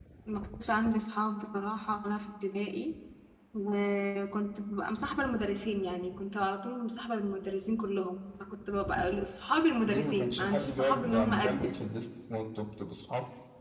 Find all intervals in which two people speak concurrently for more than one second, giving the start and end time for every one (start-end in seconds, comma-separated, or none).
9.9-11.7